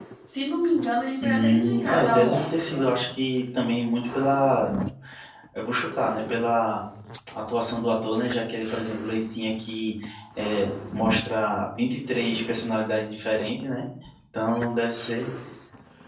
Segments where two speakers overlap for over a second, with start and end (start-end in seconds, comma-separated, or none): 1.2-2.9